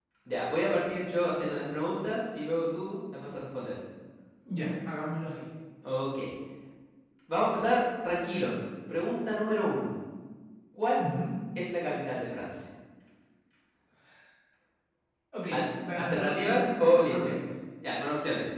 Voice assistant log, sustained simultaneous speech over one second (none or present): present